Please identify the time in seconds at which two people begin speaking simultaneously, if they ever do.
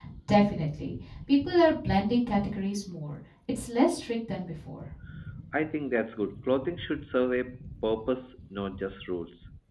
none

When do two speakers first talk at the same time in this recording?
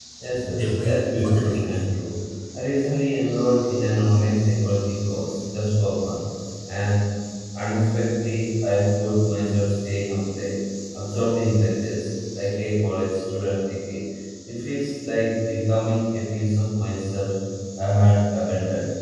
0.5 s

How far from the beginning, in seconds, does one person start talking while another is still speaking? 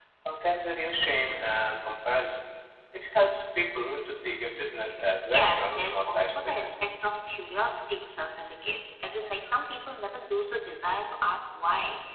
5.3 s

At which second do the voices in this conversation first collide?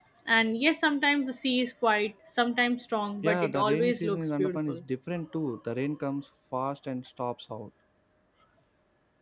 3.2 s

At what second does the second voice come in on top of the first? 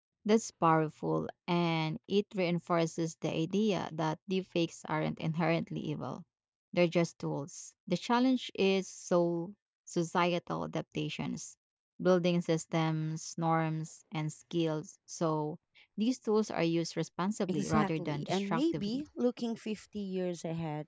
17.5 s

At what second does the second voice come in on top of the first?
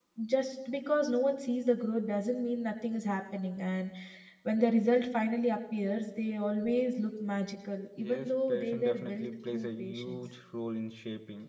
8.0 s

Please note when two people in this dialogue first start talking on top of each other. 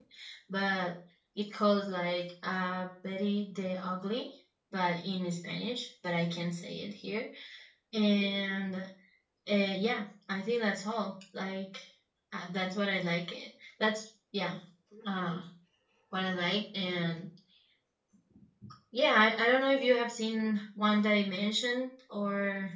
none

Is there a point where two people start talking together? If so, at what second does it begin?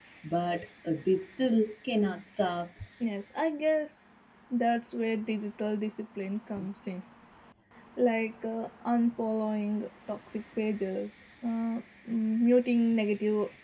none

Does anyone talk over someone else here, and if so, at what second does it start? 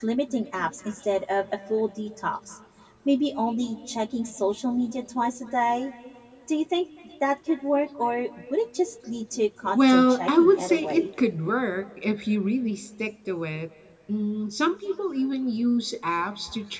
9.7 s

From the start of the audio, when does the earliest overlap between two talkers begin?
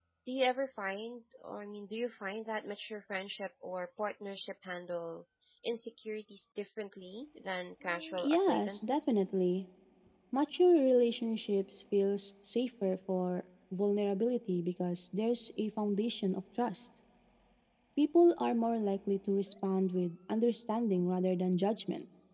7.8 s

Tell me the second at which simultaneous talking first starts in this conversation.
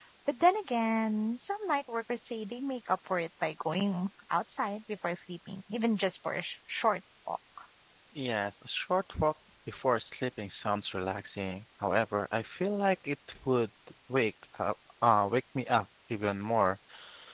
none

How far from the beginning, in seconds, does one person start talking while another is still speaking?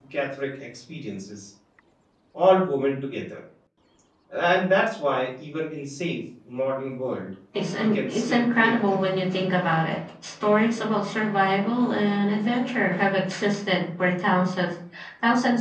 7.5 s

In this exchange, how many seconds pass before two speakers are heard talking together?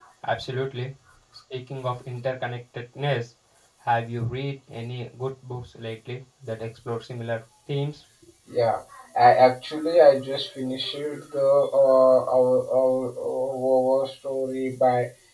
none

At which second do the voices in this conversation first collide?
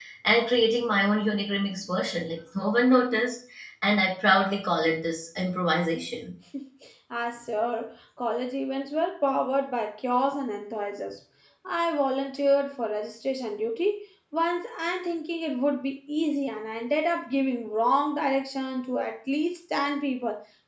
none

